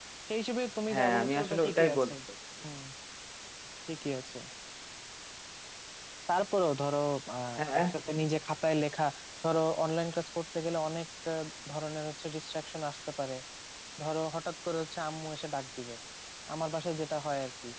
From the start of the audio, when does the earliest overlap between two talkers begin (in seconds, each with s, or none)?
0.9 s